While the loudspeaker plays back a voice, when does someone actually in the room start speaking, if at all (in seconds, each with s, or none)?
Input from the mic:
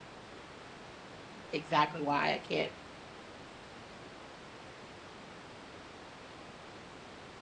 1.5 s